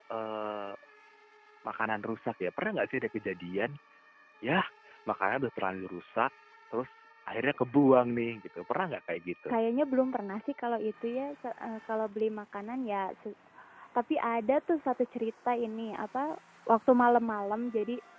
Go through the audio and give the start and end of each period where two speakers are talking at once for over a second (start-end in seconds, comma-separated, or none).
none